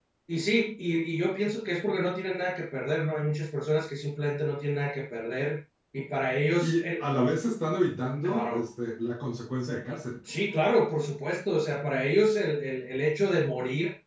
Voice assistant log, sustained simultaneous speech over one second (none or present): none